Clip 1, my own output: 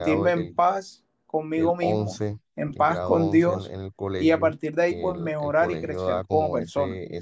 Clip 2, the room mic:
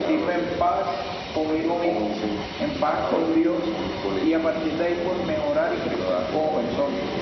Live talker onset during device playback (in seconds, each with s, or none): none